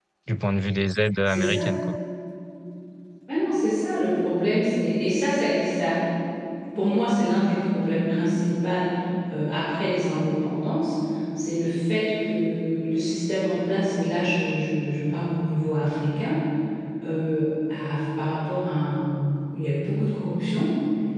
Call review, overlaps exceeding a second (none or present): none